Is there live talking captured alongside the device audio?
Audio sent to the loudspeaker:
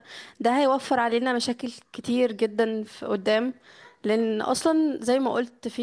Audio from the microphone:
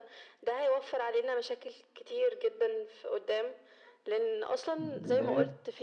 Yes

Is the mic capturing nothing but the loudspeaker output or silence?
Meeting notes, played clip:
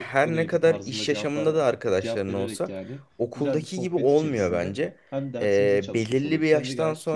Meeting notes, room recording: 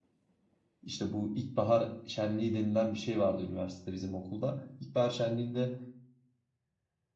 No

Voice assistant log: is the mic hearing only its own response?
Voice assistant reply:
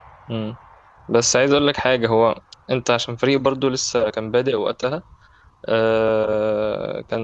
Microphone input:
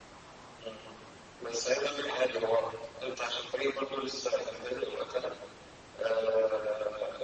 Yes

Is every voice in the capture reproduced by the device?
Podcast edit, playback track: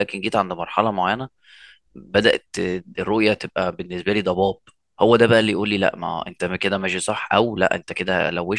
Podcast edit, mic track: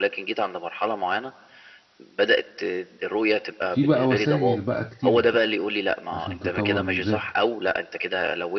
No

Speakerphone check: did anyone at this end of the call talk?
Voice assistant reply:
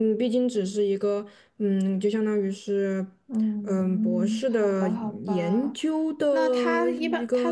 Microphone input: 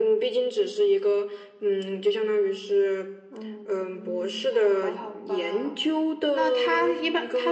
No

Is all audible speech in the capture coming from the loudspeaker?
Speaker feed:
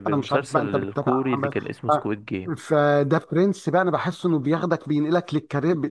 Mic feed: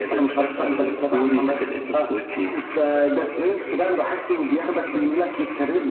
Yes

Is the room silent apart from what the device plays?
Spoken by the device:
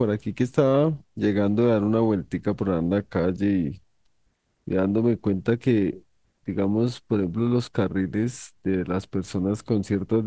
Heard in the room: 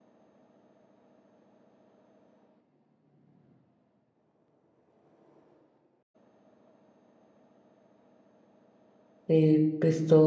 No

